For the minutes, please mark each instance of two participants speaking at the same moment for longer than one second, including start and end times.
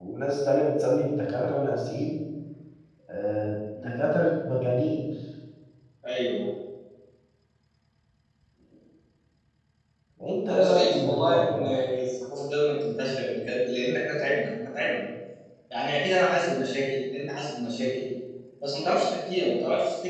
10.5-11.8

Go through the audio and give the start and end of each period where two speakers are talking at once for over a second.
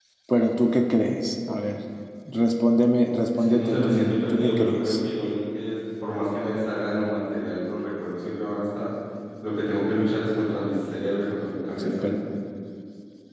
3.3-5.0

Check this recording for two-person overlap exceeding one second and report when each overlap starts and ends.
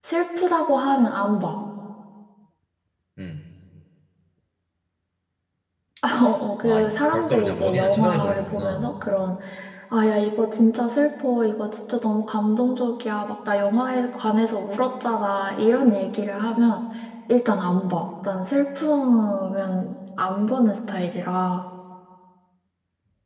6.6-8.8

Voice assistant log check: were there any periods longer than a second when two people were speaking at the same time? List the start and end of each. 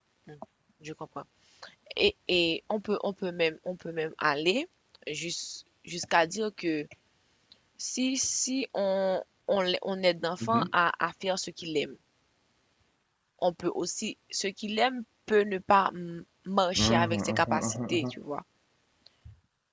16.8-18.1

